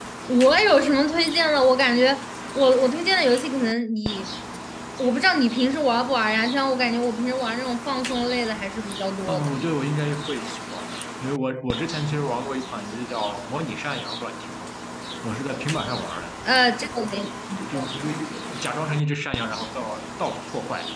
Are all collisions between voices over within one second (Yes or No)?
Yes